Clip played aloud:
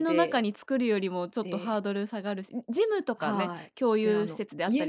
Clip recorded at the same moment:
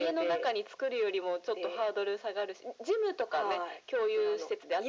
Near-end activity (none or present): none